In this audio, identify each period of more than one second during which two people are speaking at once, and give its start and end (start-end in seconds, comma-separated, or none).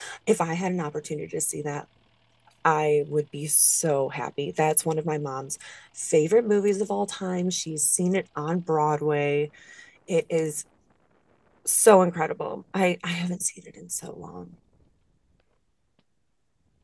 none